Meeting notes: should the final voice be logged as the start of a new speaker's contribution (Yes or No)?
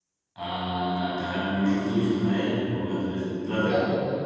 Yes